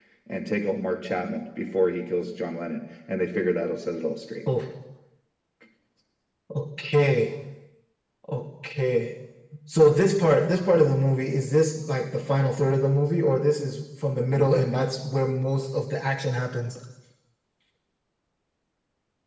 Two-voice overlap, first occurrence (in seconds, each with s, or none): none